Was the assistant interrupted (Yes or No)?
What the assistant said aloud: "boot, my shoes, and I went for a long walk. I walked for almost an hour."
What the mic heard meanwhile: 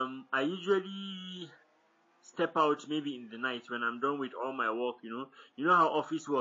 Yes